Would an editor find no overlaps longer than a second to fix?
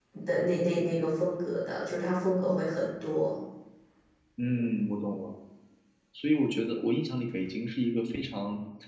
Yes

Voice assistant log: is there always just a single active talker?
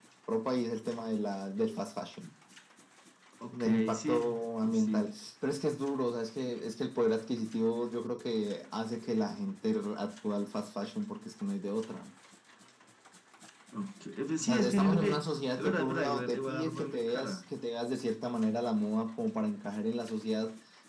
No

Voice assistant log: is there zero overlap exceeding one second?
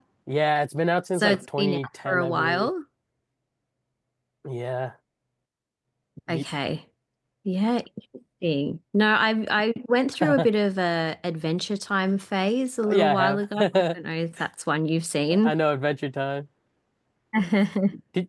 No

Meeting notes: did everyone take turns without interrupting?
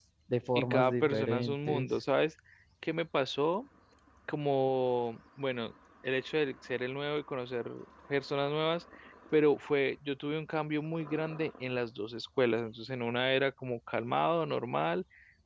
No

